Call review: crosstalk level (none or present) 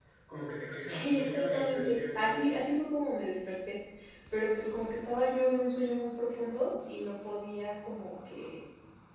present